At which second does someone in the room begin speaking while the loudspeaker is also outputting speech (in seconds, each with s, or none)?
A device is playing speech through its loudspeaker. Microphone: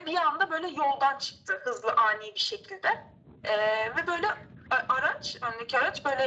none